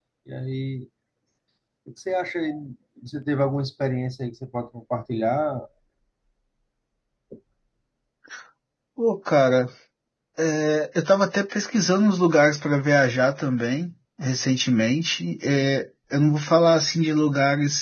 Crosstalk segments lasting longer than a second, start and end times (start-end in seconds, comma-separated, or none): none